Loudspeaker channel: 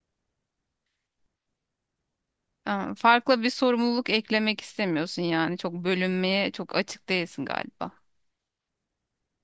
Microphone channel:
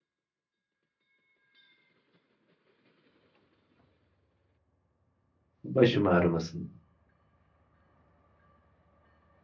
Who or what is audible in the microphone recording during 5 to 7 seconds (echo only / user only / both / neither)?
user only